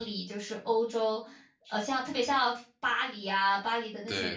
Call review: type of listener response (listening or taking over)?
listening